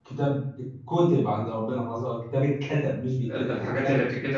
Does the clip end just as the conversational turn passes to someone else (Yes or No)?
Yes